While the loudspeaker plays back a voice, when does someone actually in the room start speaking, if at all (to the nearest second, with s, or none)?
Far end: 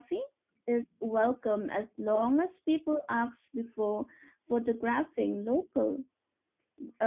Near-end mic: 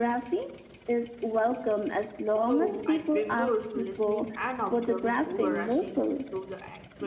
2 s